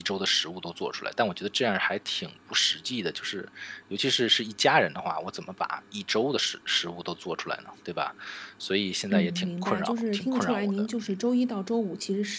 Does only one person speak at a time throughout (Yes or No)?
No